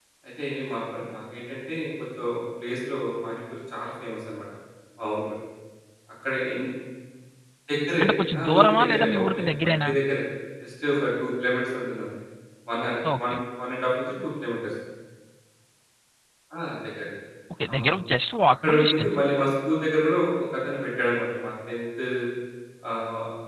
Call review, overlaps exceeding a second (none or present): present